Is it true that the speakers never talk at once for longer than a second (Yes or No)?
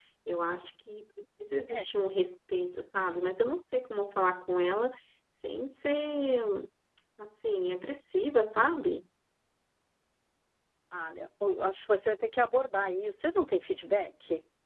Yes